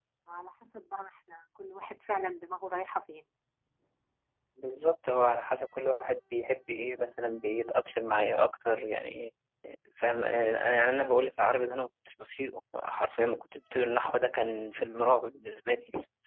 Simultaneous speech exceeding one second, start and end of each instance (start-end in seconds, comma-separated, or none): none